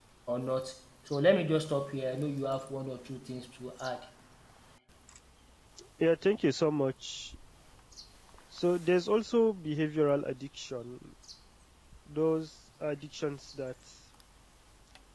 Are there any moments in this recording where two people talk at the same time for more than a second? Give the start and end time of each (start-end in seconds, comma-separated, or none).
none